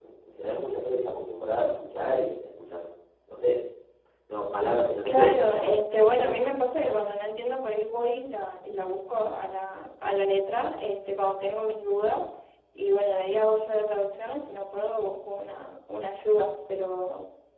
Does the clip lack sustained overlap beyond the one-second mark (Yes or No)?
No